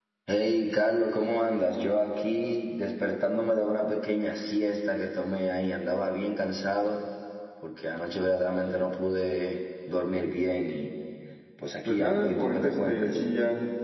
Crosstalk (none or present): present